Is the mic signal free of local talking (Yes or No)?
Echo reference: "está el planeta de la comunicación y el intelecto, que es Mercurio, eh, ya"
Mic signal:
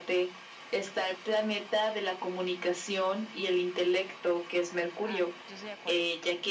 No